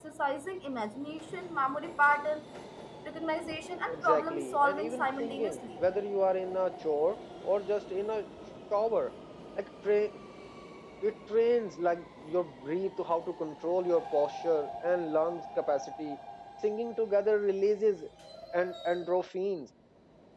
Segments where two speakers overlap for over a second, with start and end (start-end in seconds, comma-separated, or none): 3.9-5.6